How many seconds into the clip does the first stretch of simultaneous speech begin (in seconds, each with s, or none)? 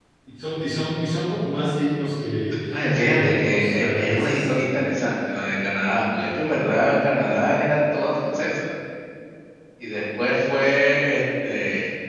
3.1 s